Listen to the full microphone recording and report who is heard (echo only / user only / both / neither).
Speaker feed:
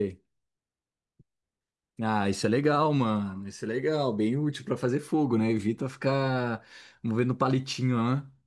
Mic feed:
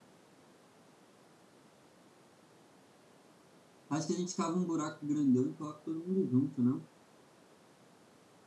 user only